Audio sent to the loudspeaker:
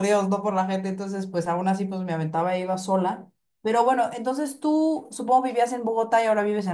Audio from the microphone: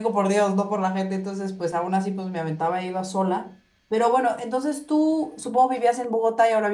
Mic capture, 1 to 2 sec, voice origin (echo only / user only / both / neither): echo only